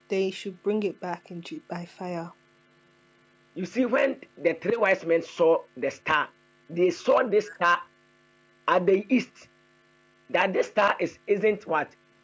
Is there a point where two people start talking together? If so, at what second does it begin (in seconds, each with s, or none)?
none